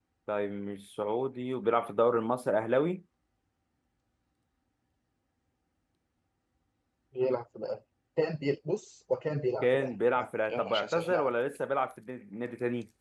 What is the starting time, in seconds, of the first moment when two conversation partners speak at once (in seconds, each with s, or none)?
9.6 s